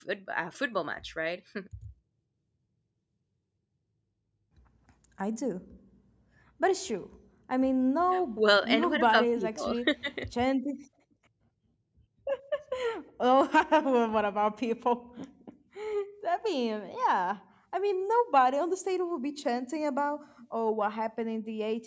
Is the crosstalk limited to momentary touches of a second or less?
No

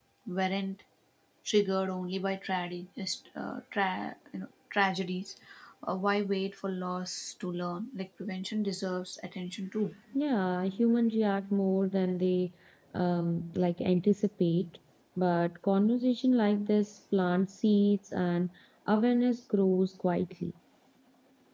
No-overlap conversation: Yes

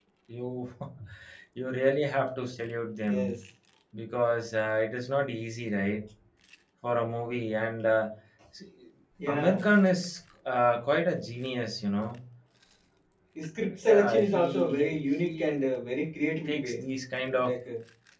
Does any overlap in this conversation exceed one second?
Yes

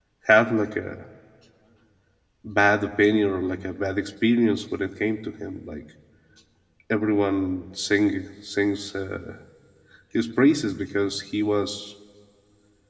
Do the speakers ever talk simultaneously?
No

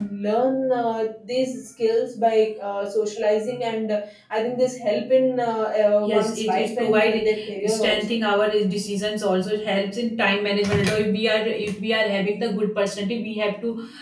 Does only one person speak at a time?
No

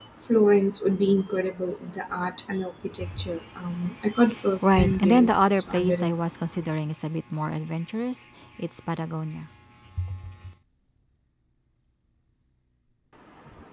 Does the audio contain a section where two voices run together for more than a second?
Yes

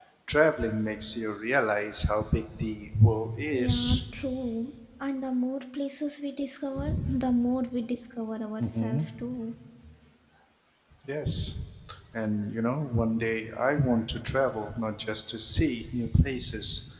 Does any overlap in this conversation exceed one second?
No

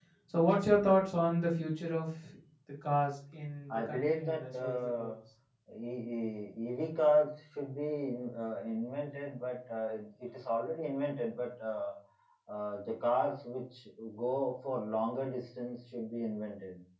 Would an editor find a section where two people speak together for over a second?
Yes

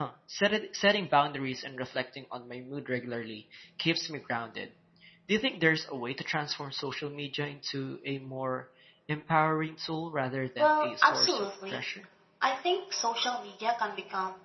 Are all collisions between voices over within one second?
No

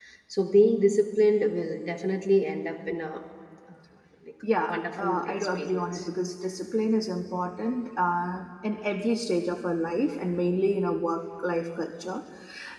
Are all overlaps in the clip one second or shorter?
No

